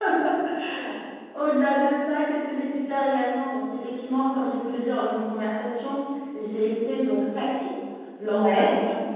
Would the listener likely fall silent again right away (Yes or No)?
Yes